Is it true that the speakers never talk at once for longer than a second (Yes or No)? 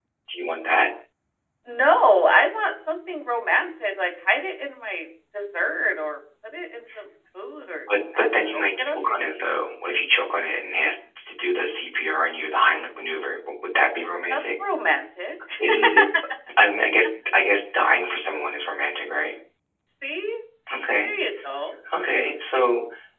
No